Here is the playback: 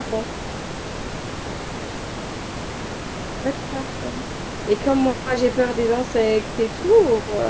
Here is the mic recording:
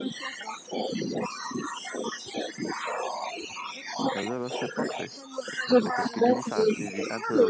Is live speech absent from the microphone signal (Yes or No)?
No